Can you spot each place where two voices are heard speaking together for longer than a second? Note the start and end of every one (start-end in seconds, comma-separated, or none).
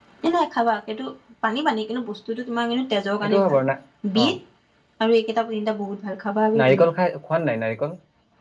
none